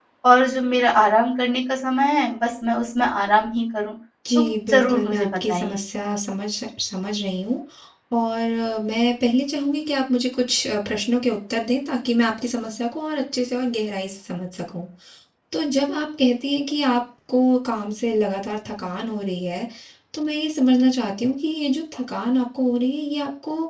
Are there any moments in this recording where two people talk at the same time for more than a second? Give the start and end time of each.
4.3-5.8

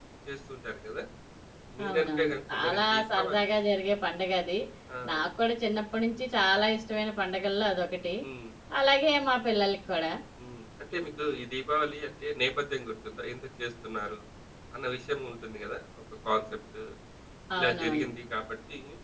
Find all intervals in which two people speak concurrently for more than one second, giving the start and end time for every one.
1.9-3.5

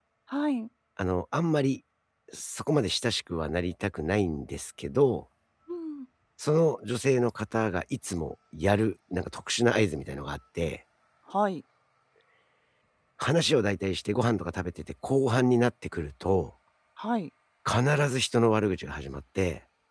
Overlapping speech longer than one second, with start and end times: none

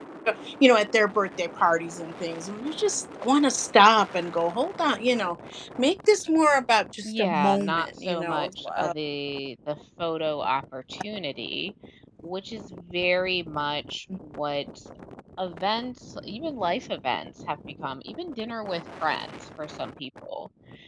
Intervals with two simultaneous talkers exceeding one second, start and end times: 7.0-8.9

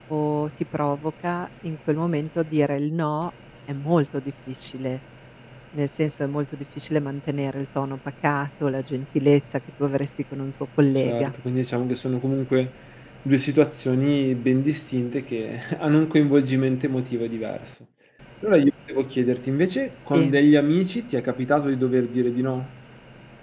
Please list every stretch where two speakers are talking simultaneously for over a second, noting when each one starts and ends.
none

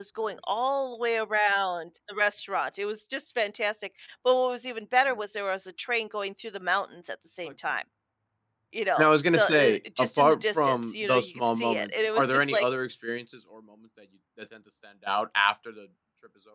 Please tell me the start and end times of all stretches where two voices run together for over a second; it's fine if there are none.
9.0-12.7

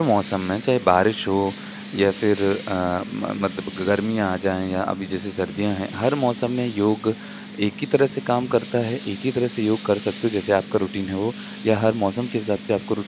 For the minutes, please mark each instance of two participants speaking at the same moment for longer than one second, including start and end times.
none

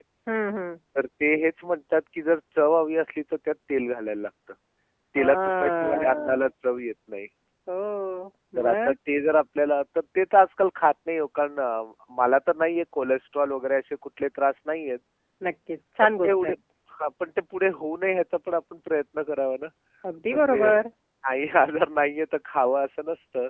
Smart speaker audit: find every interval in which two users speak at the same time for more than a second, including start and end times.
5.2-6.4

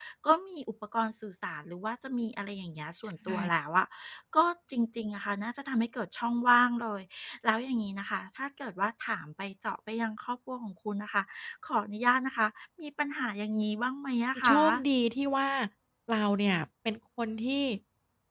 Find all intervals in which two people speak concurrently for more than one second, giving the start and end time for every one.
none

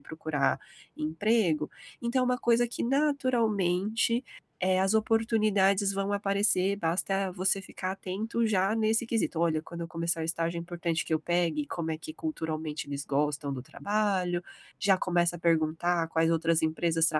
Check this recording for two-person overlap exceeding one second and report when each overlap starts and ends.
none

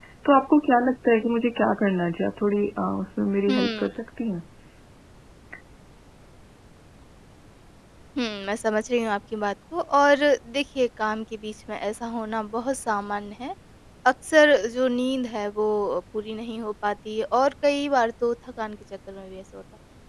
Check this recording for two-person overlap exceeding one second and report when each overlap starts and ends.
none

